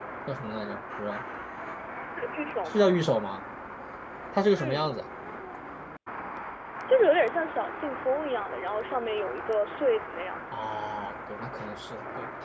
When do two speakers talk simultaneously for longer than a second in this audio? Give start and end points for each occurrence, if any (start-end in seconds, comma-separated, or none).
none